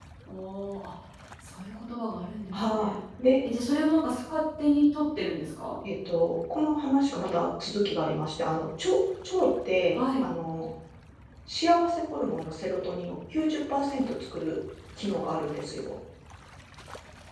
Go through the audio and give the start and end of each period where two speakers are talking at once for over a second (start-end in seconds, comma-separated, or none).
none